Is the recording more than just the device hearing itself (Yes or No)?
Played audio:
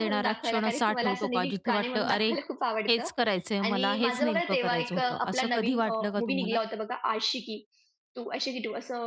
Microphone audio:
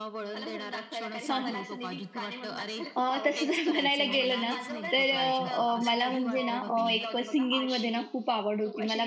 Yes